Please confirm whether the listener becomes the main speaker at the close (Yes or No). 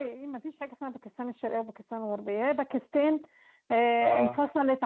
No